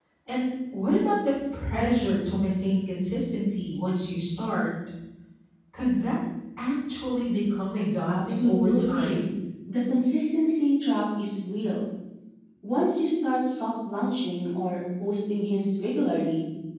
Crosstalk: present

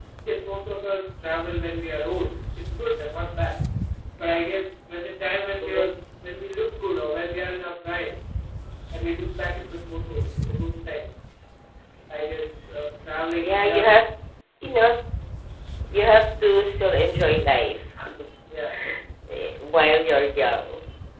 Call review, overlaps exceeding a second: none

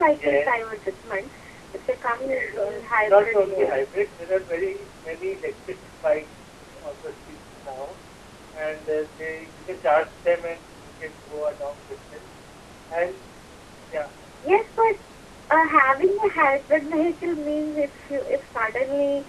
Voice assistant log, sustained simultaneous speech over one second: present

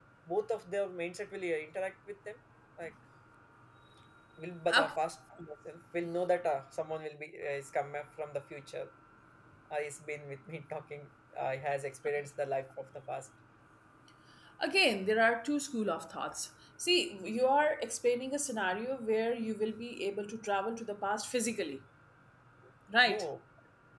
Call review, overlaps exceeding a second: none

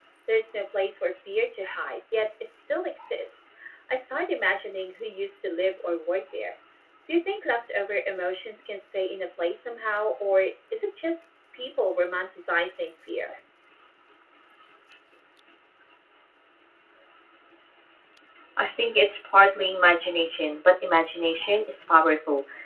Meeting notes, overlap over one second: none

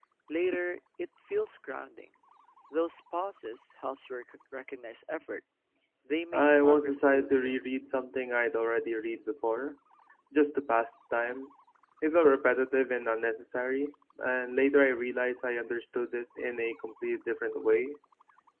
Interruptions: present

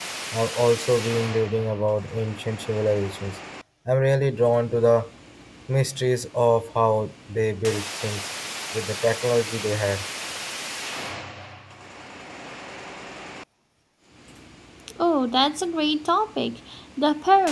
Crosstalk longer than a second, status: none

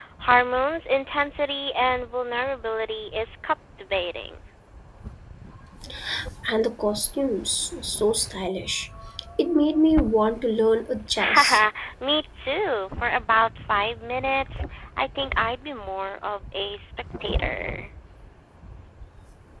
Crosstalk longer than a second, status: none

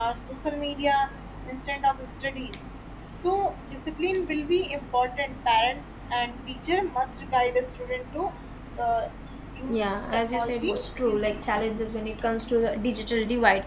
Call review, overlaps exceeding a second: present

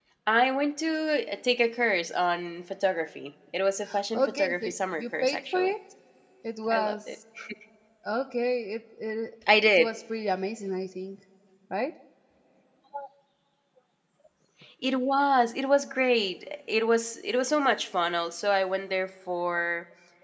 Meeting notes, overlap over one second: present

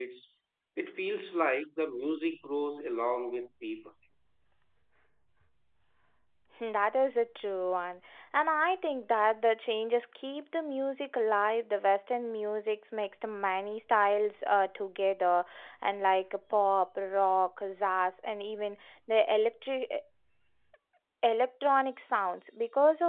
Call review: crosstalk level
none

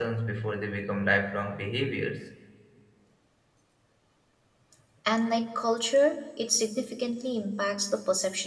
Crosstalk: none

